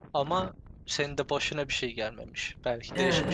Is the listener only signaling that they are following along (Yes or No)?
No